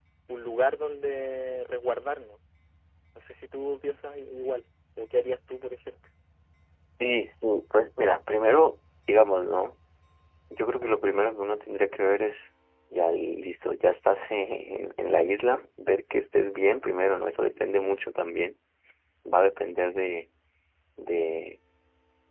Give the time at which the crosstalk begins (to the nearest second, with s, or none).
none